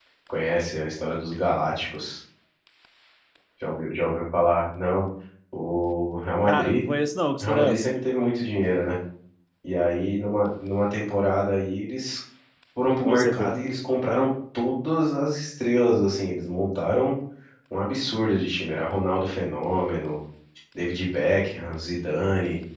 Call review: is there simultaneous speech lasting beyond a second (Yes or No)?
No